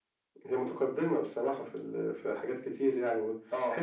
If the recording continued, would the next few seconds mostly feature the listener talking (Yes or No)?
No